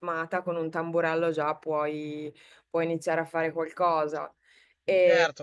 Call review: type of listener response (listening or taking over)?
taking over